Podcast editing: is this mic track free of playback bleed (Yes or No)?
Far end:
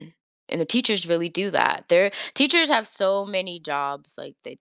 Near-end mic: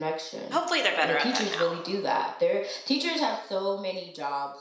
No